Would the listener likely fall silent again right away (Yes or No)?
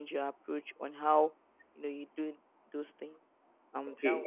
No